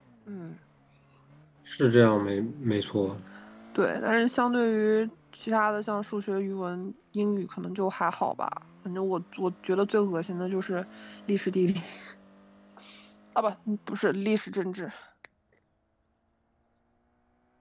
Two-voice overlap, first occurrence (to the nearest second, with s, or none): none